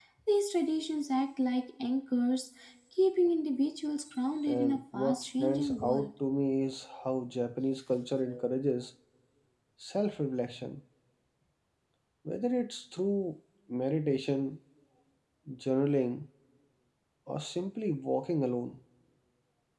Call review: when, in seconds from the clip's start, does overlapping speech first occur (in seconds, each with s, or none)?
4.5 s